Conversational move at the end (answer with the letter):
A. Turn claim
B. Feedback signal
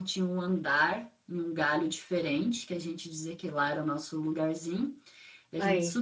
B